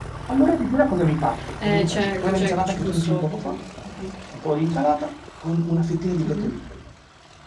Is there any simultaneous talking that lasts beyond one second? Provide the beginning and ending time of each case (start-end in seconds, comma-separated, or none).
1.6-3.5